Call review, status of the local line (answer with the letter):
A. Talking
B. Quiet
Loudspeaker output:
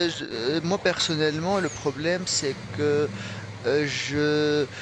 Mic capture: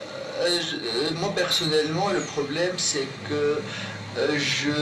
B